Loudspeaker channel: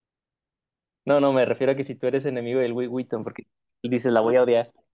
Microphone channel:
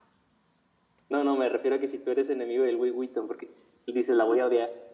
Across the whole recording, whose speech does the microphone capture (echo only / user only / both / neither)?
echo only